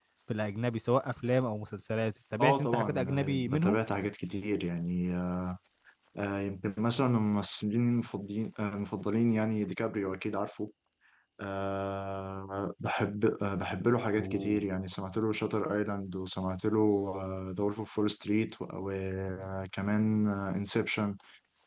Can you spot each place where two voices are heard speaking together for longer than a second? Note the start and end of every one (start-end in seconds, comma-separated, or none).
2.4-3.8